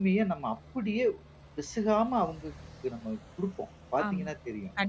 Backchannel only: No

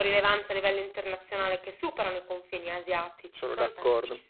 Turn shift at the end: No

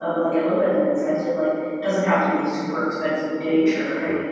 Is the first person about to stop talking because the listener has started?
No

